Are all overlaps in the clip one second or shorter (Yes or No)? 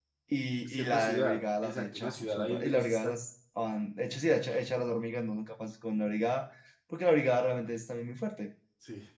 No